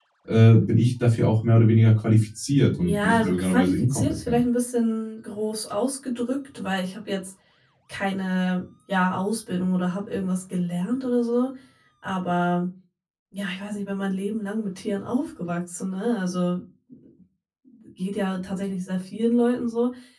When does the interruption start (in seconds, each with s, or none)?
2.8 s